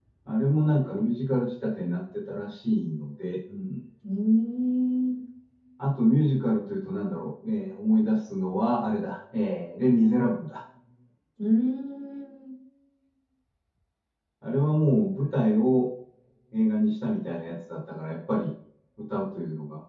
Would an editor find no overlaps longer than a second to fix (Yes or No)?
Yes